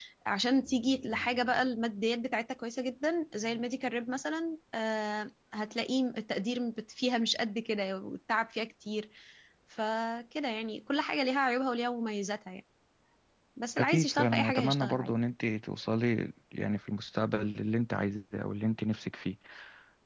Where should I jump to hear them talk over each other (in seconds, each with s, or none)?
13.8 s